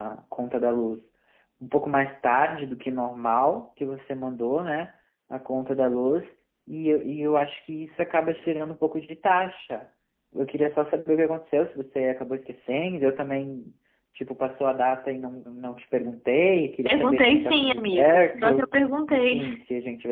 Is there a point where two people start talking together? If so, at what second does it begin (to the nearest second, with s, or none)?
17 s